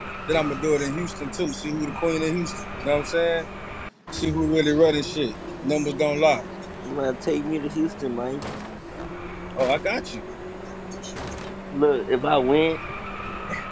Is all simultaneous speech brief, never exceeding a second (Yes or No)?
Yes